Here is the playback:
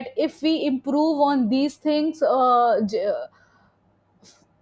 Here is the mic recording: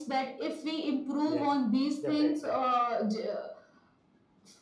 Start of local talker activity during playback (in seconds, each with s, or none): 1.2 s